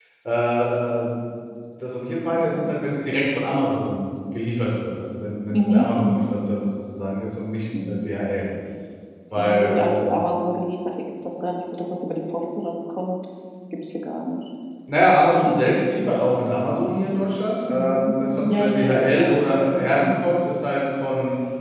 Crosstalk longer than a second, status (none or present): present